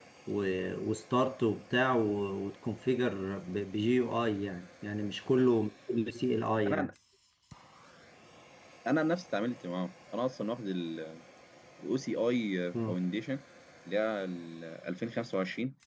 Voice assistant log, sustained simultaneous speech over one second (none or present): none